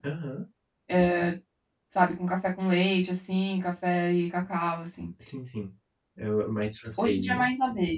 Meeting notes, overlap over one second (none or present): none